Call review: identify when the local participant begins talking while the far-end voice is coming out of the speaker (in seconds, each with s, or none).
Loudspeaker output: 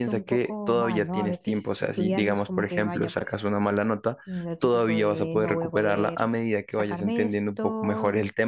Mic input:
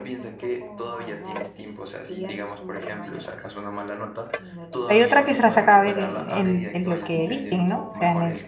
4.8 s